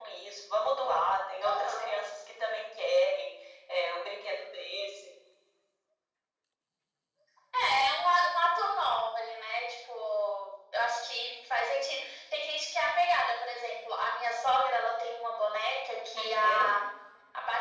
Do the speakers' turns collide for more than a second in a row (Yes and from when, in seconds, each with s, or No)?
No